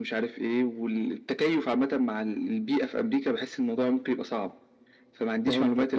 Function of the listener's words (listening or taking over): taking over